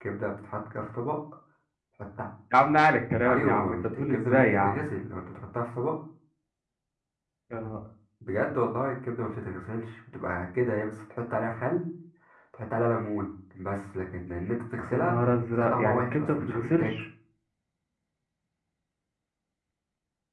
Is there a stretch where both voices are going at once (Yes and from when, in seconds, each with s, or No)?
Yes, from 3.3 s